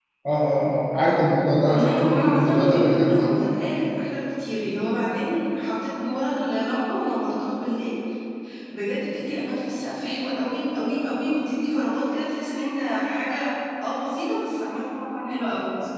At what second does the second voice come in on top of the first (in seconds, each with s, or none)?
1.7 s